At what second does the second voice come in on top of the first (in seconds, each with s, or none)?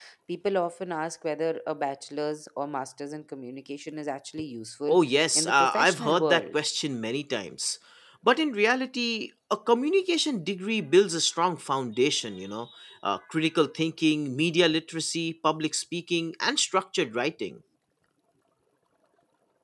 5.4 s